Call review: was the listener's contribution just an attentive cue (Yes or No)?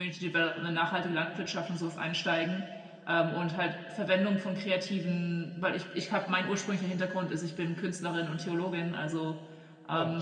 Yes